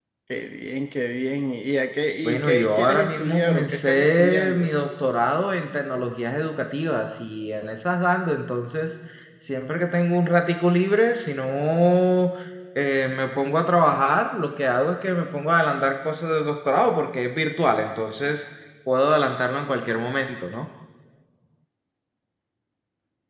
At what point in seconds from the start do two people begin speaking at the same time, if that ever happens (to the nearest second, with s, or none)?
2 s